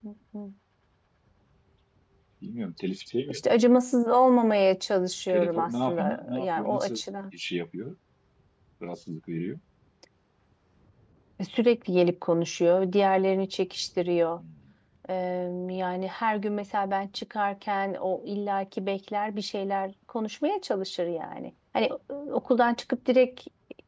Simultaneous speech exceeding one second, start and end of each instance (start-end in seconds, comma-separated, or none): 5.3-7.0